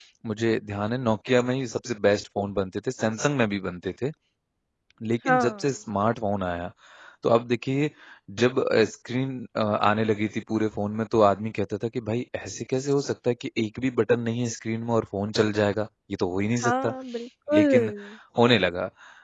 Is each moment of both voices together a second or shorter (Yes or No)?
Yes